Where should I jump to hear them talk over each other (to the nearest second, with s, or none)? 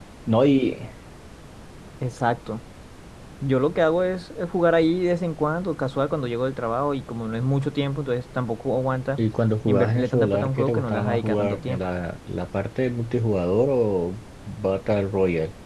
10 s